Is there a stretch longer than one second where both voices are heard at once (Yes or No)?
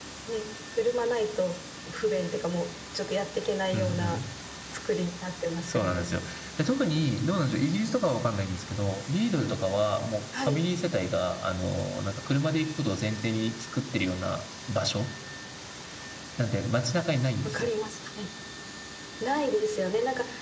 No